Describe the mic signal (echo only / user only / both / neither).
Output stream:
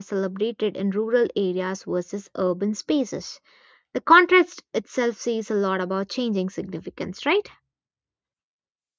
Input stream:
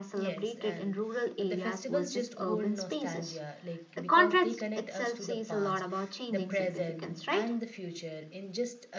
both